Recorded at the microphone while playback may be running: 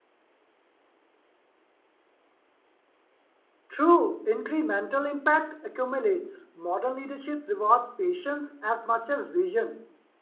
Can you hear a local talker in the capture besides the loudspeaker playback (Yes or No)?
Yes